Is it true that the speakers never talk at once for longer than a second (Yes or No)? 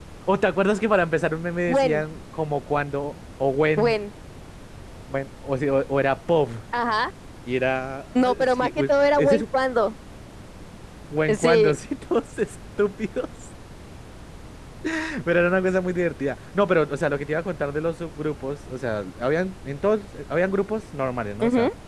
No